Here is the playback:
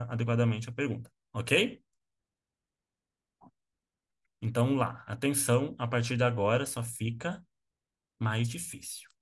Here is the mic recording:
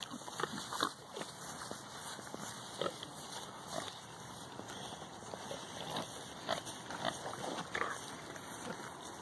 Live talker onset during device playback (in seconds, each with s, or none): none